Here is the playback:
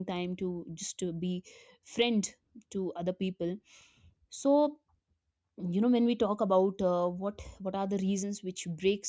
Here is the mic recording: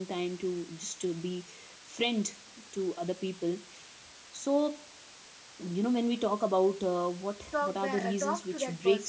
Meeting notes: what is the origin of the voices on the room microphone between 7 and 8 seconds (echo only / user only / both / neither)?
both